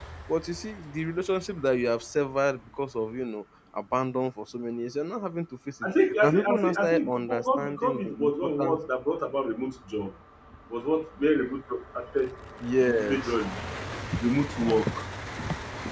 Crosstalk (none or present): present